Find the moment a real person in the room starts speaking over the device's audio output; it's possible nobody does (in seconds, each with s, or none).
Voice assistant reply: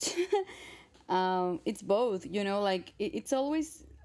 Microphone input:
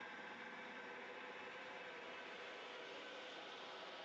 none